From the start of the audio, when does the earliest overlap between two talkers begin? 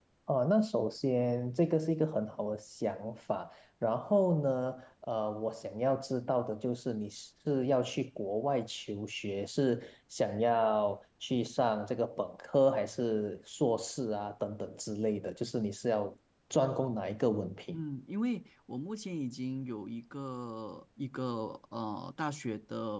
none

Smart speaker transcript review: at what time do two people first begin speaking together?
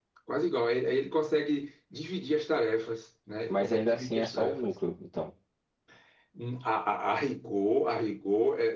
3.5 s

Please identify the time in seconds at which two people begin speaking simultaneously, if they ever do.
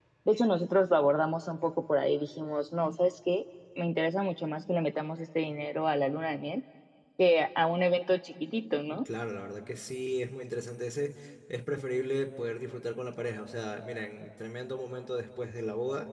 none

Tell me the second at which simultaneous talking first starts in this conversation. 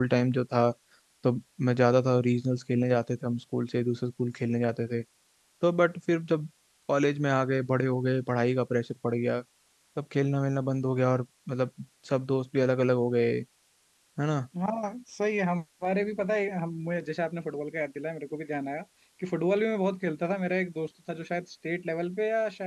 none

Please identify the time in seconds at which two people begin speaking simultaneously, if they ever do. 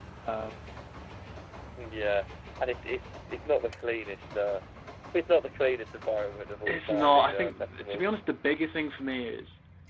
6.7 s

